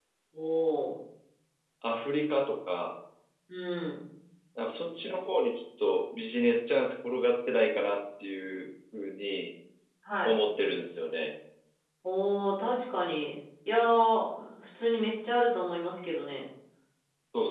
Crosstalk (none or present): none